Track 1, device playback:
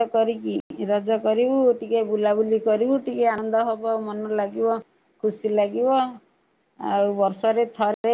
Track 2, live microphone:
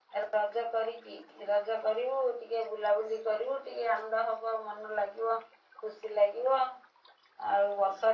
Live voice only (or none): none